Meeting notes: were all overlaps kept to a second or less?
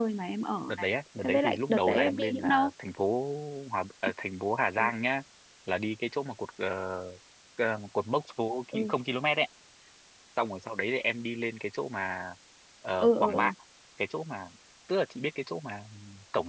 No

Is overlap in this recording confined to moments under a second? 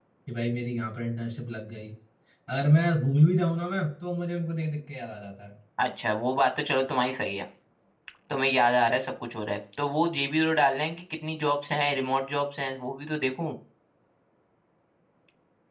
Yes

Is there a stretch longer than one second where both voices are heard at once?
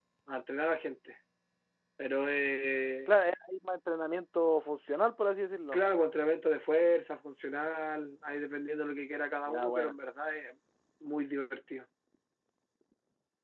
No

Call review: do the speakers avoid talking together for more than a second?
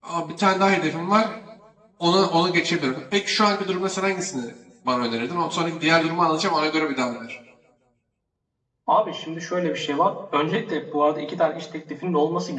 Yes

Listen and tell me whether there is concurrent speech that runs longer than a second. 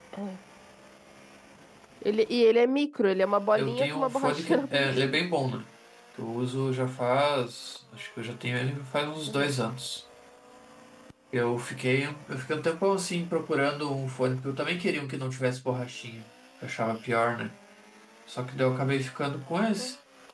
Yes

